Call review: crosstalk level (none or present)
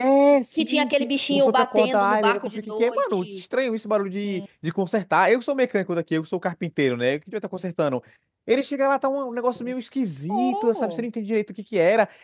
present